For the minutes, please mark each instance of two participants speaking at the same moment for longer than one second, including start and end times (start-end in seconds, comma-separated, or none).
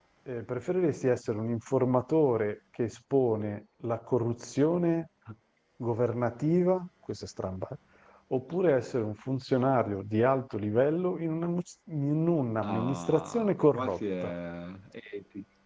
12.6-14.3